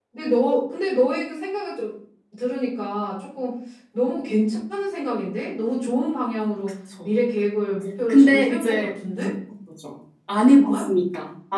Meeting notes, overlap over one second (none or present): present